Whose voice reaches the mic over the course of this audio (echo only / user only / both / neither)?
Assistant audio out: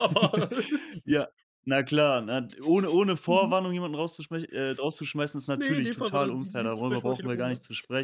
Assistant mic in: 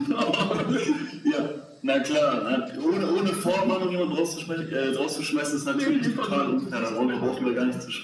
echo only